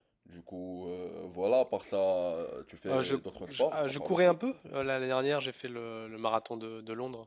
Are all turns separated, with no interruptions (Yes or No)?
No